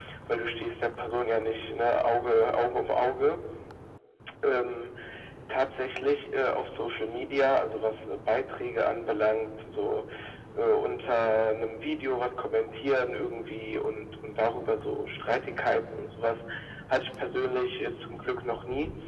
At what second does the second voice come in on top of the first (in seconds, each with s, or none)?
none